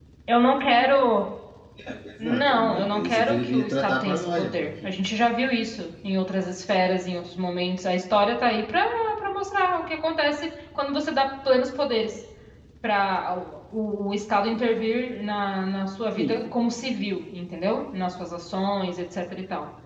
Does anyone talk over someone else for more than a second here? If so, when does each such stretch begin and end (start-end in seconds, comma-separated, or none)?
2.2-4.8